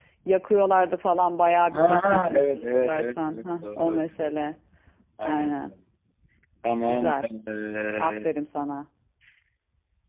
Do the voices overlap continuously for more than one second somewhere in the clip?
Yes, from 1.8 s

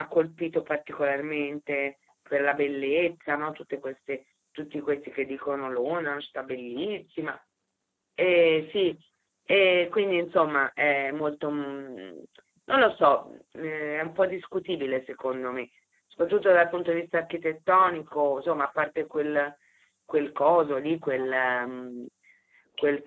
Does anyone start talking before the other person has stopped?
No

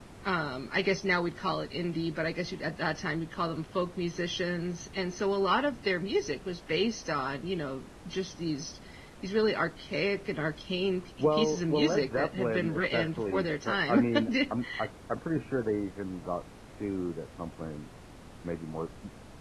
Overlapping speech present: Yes, from 11.2 s

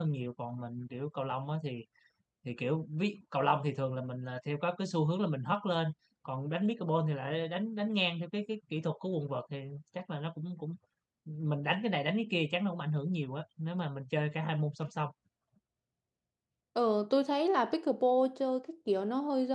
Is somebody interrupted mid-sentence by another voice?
No

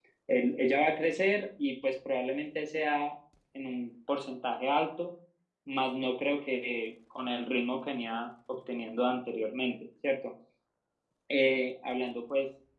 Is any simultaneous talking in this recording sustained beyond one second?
No

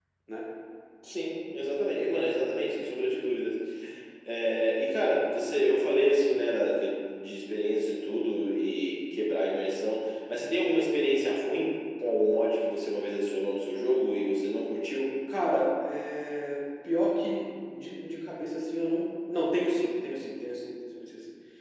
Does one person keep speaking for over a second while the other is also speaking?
No

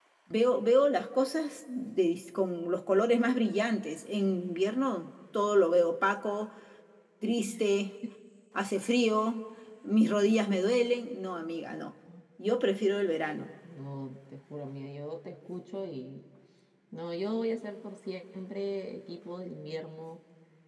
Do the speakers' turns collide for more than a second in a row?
No

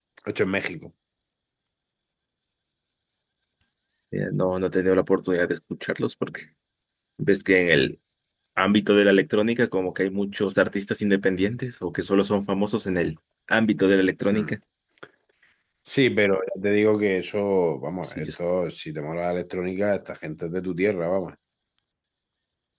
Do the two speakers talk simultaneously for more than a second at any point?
No

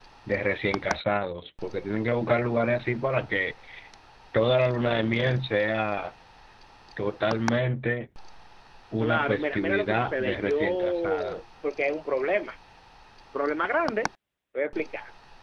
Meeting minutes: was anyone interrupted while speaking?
Yes, from 9.0 s

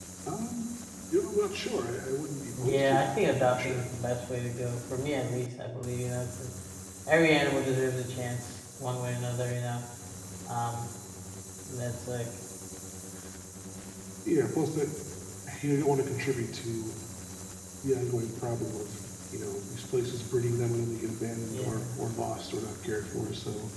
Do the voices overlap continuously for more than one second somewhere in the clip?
Yes, from 2.6 s

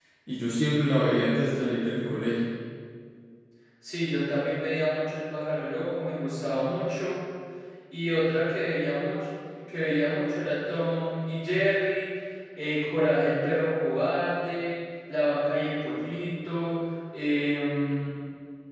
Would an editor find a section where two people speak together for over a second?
No

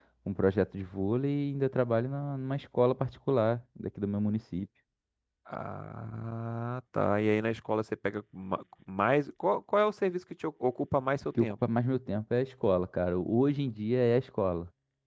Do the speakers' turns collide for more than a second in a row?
No

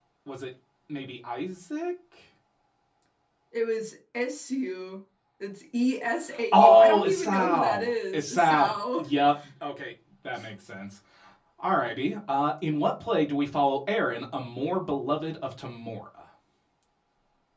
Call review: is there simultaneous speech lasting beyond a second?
Yes, from 6.3 s

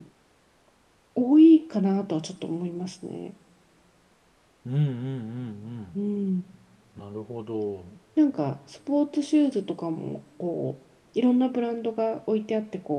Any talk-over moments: No

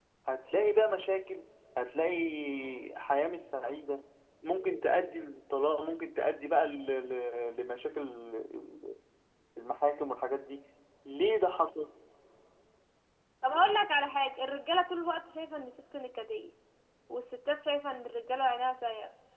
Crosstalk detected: No

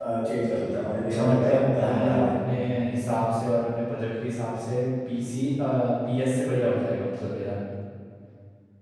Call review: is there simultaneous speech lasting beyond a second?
Yes, from 1.0 s

